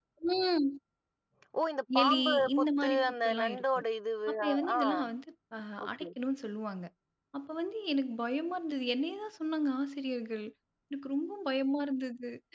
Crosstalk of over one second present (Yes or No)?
Yes